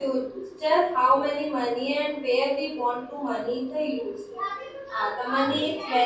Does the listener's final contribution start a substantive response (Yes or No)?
No